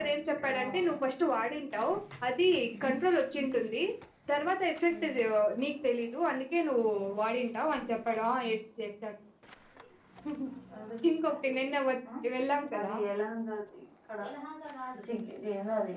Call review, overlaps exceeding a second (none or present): none